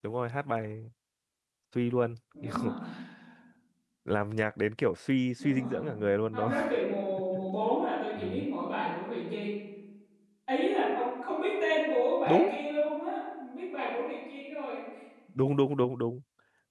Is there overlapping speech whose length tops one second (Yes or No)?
No